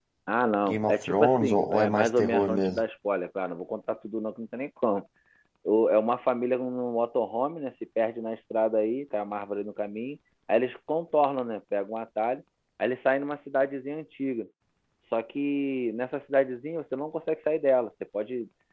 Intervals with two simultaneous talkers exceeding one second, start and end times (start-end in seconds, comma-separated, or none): 0.7-2.8